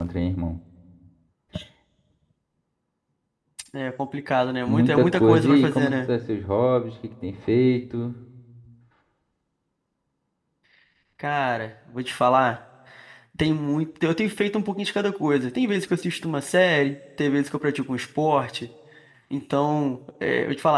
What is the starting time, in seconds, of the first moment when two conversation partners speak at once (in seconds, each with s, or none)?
4.7 s